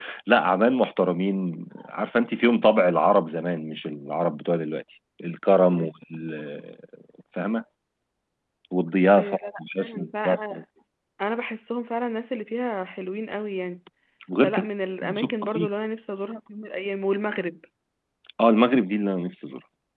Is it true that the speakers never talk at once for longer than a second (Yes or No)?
No